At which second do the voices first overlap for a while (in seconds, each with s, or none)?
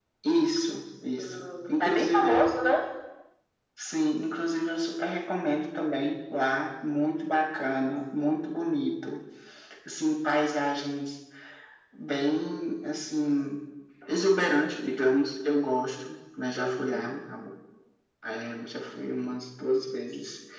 1.2 s